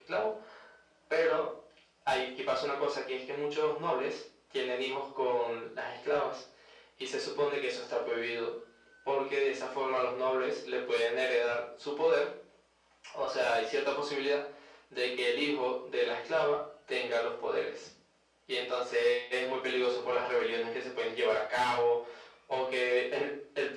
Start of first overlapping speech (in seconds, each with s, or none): none